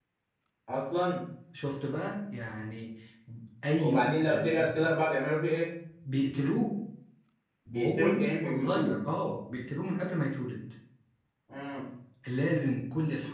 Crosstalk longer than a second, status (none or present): present